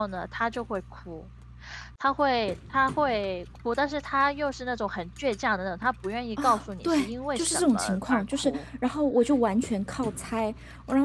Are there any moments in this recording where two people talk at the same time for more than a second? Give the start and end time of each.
6.4-8.7

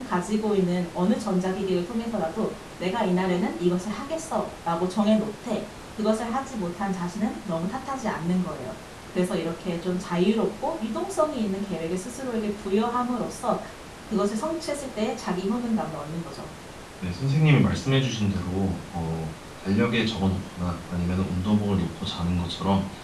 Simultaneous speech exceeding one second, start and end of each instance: none

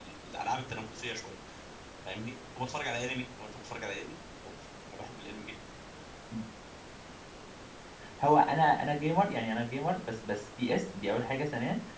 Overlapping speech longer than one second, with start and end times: none

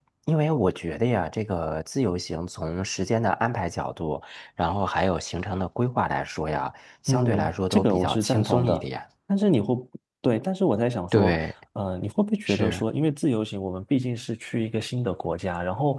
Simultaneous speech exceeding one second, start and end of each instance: 7.1-8.8

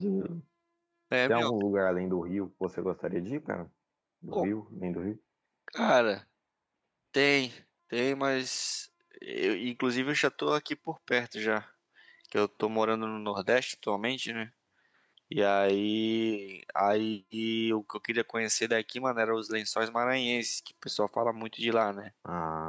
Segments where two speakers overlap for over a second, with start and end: none

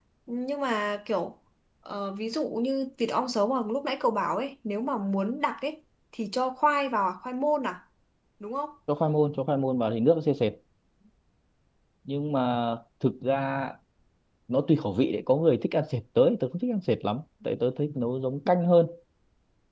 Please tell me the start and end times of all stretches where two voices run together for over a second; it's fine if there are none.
none

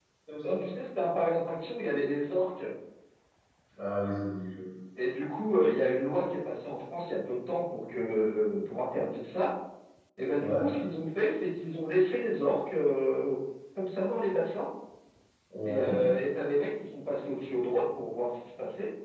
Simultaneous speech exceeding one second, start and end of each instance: none

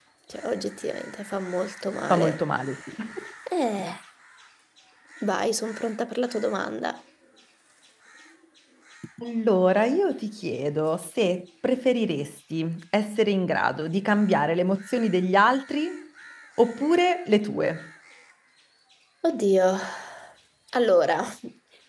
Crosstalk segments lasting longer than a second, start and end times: none

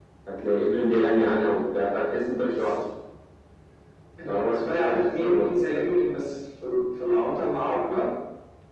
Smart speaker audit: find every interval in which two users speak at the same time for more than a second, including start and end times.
4.3-5.5

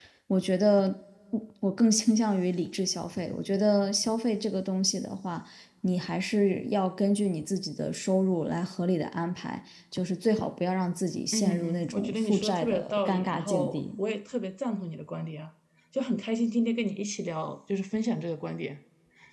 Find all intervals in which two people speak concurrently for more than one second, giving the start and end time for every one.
11.3-14.0

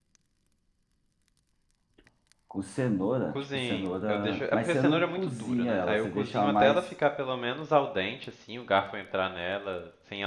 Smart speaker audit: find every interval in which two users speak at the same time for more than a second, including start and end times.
3.3-6.9

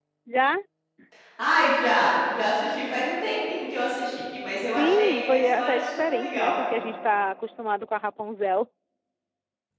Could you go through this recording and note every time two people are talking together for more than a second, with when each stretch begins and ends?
4.8-6.5

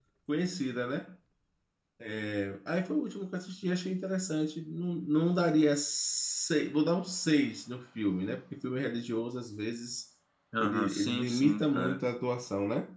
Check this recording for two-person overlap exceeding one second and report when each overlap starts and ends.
10.6-12.0

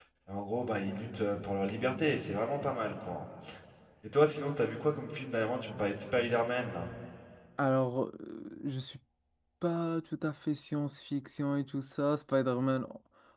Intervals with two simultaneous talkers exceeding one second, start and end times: none

